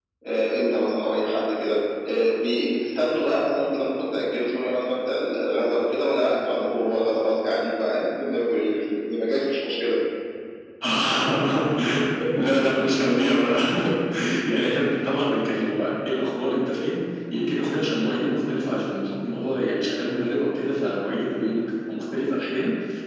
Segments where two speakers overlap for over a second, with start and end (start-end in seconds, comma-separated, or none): none